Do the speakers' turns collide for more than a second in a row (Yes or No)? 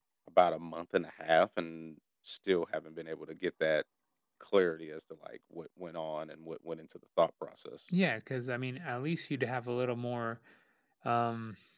No